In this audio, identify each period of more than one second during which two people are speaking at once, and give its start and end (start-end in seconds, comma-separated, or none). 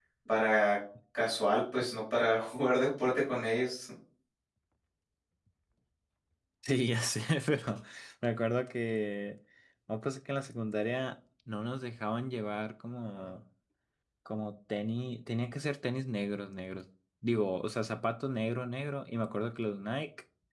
none